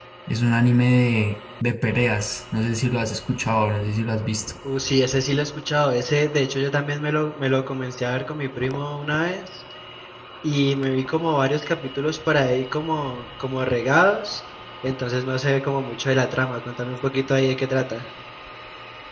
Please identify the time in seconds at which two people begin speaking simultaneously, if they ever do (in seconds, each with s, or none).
none